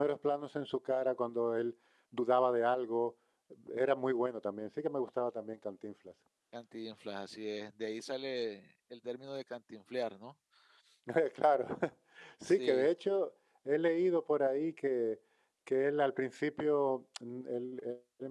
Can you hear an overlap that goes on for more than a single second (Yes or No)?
No